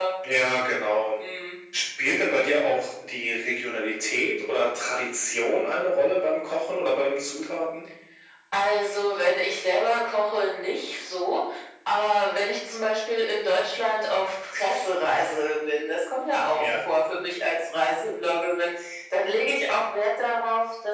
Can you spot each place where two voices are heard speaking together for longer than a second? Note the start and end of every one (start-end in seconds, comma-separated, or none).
none